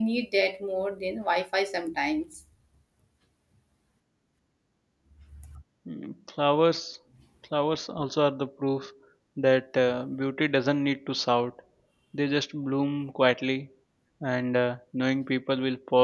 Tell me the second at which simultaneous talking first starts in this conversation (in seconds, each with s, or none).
none